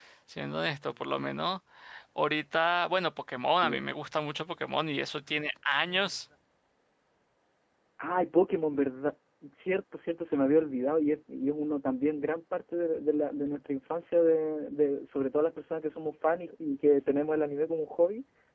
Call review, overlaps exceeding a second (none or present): none